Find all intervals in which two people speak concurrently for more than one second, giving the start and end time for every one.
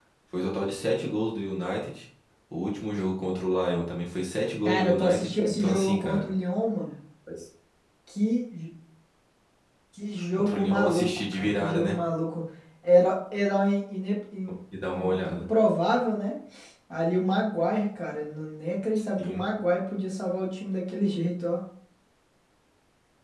4.7-6.2, 10.4-11.9

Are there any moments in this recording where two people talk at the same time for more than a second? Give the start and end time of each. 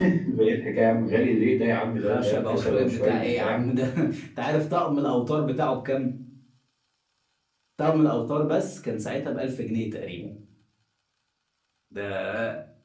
2.0-3.6

